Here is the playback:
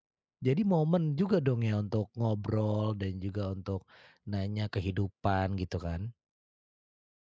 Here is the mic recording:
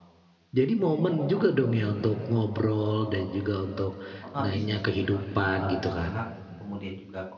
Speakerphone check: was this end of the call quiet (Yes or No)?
No